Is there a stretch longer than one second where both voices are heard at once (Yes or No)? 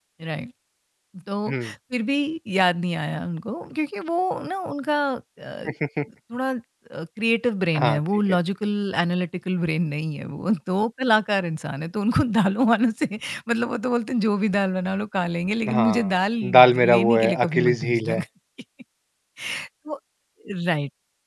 Yes